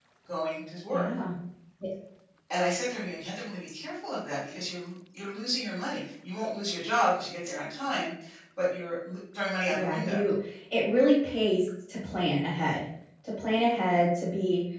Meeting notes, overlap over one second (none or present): none